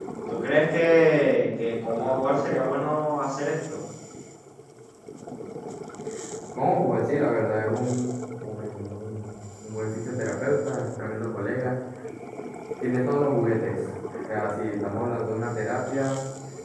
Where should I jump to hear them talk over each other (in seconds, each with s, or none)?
none